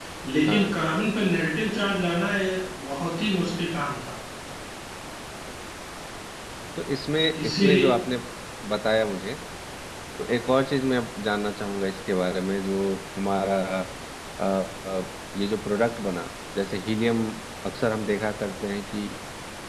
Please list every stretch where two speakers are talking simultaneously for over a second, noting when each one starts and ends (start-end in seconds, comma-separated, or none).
none